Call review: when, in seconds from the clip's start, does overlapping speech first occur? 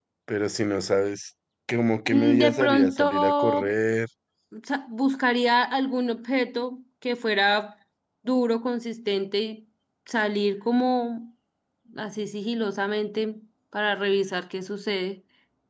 2 s

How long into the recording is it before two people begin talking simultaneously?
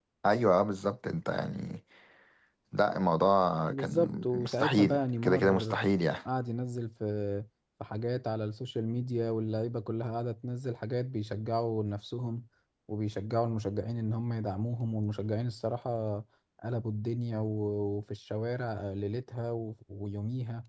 4 s

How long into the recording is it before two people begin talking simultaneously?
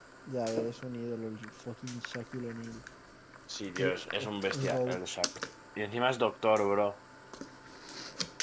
4 s

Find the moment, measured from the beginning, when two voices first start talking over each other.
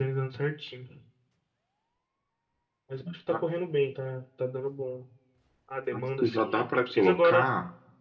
6 s

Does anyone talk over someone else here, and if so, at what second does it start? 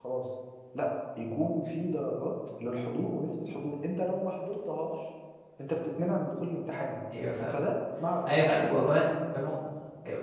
none

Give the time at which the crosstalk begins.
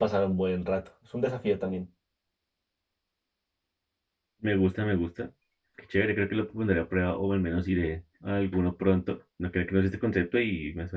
none

